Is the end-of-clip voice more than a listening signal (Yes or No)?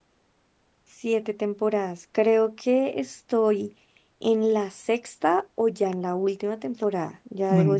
Yes